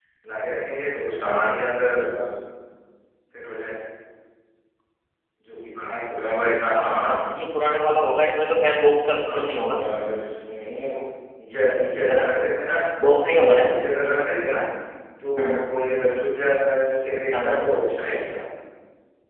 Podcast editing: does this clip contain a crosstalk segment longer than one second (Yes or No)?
No